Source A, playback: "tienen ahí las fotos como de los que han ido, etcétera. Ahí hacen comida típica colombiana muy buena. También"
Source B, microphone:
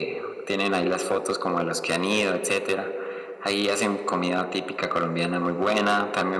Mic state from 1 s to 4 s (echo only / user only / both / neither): echo only